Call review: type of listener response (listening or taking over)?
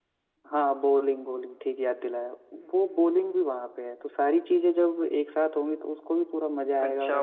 taking over